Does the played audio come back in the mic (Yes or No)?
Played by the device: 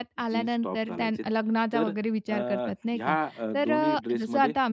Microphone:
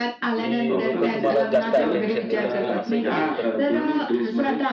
Yes